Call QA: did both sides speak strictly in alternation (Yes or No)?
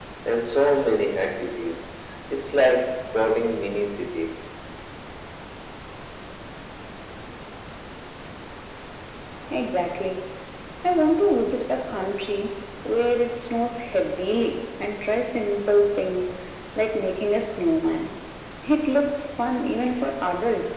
Yes